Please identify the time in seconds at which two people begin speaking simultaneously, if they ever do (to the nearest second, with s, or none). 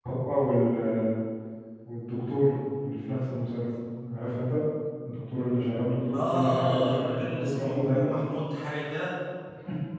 6 s